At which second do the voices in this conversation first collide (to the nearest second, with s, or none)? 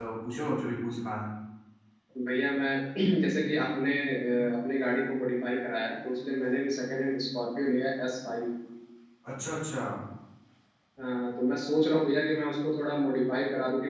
none